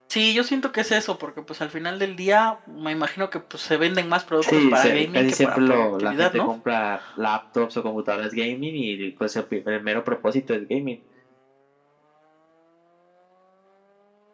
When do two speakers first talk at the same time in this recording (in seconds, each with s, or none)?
4.4 s